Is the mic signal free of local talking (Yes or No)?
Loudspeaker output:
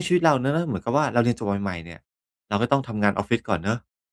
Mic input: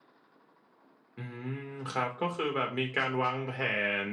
No